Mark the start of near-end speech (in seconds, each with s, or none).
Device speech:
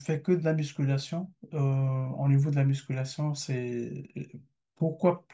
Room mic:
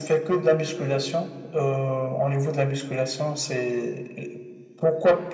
none